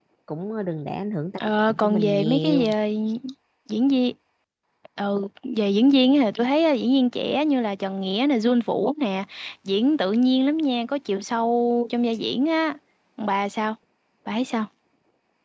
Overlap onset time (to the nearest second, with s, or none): 1 s